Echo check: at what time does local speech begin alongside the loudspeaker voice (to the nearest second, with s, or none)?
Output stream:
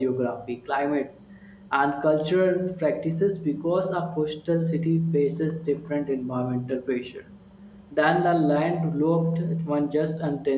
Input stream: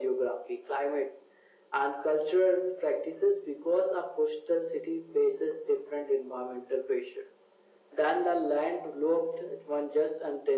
none